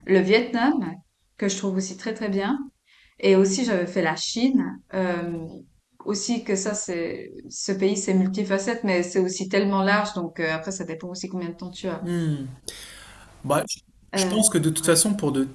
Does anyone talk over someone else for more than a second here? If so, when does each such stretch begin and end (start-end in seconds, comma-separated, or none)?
none